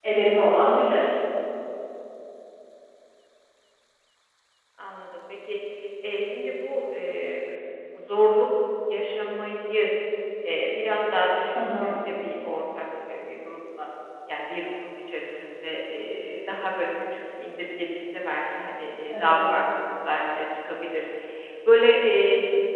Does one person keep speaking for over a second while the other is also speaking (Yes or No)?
No